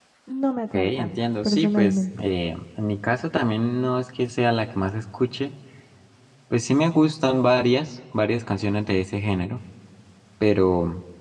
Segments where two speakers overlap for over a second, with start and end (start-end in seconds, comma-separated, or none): 0.7-2.0